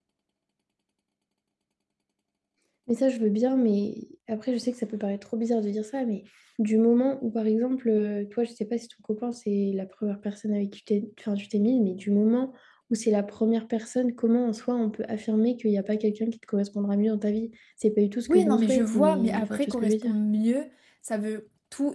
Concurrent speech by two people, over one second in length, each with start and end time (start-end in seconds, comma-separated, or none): 18.3-20.1